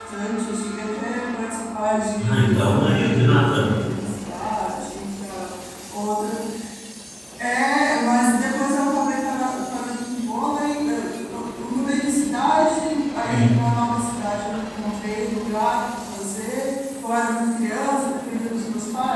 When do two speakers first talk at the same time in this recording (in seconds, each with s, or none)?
2.2 s